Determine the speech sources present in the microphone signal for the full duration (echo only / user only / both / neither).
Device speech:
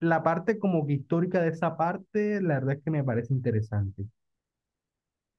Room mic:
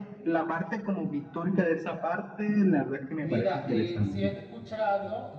both